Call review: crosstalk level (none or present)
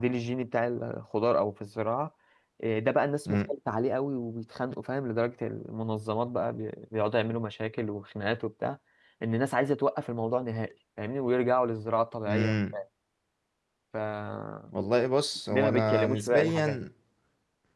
present